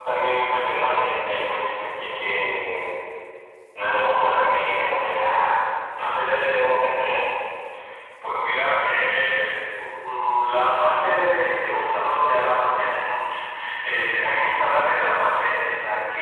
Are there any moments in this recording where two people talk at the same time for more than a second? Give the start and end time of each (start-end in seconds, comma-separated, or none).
none